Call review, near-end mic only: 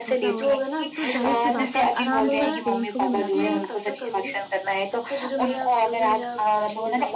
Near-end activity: present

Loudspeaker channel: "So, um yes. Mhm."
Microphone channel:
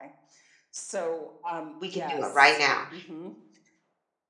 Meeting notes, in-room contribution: present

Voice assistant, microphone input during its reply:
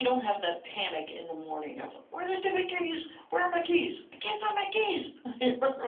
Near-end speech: none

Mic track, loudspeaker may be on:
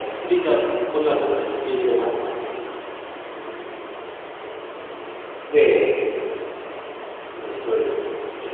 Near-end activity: none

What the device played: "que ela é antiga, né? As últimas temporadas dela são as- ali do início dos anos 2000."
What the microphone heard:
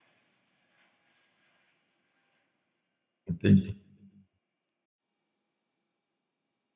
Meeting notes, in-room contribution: present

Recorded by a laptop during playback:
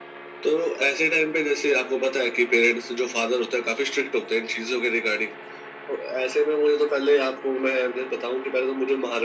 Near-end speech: none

